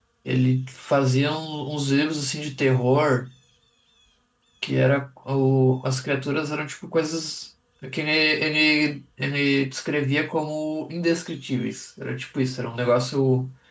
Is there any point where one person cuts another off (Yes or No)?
No